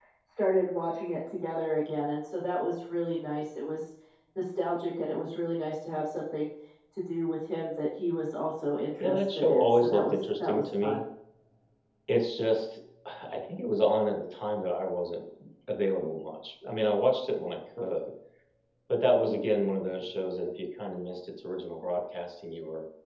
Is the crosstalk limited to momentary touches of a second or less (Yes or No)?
No